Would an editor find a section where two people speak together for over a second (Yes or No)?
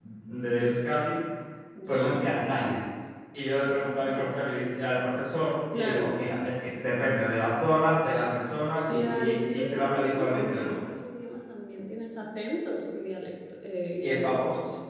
Yes